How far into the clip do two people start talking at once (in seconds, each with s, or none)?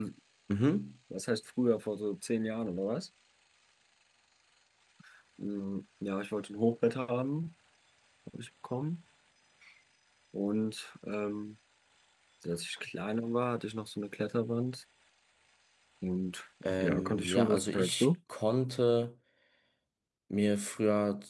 16.8 s